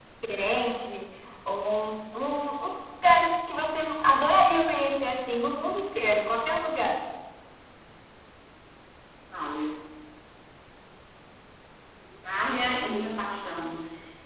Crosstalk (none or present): none